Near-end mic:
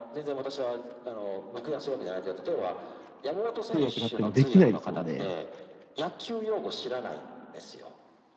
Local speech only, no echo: 通訳になってもできないですもんね。

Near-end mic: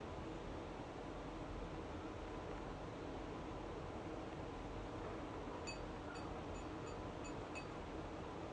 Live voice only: none

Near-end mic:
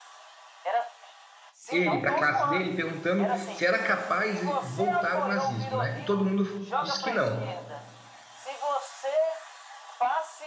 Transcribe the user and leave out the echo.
ele para a classe dele perguntando se era capaz de voltar o nazismo, né? E todo mundo disse que não.

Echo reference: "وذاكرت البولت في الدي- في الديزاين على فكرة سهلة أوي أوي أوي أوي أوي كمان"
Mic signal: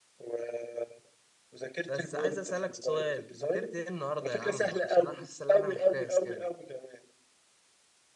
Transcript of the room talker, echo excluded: بس عايز اسالك سؤال ذاكرت ايه النهارده يا عم عشان انا حاسس ان انا محتاس كده

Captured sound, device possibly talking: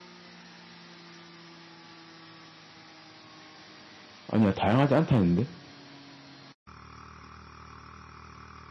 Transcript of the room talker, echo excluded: 아니야, 다양하지 않다 했는데?

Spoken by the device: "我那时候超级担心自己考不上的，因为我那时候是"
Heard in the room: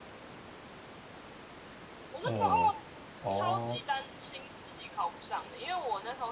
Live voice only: 呃，哦

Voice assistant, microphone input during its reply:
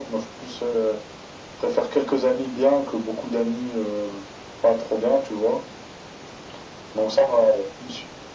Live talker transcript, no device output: none

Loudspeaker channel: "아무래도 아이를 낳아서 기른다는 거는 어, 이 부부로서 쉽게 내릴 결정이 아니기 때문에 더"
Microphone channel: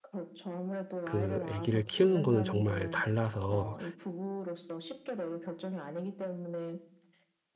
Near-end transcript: 그 아기를 키우는 거는 정말 달라서

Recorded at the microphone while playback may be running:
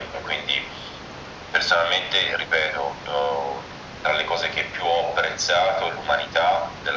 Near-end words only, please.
none

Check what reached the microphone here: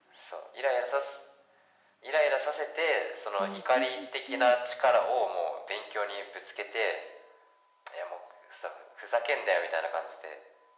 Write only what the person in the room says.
ね、一日、

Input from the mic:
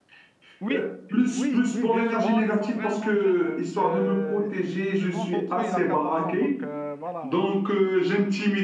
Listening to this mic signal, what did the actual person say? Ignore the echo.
Oui, oui, oui, bien sûr. Bon, ils sont vraiment jeunes. Euh, le plus grand d'entre eux, il a 14 ans, donc euh, voilà.

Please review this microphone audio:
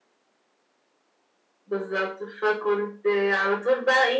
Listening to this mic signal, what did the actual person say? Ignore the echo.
none

